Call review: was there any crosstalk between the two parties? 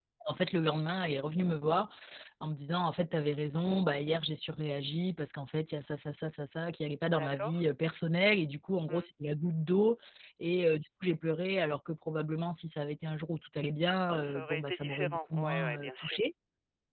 Yes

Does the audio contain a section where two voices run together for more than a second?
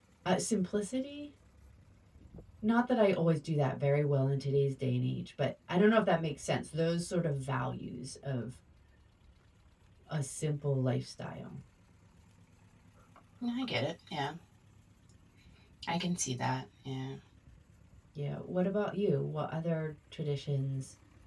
No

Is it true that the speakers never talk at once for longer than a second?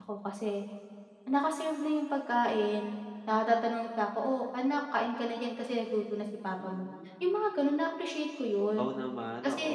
Yes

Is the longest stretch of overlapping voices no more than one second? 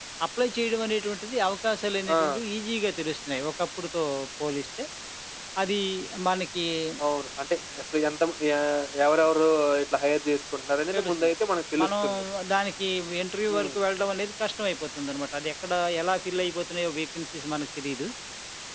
Yes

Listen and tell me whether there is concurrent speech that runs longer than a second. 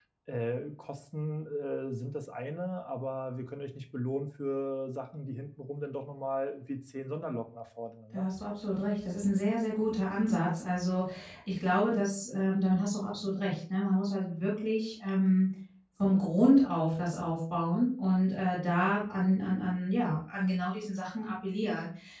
No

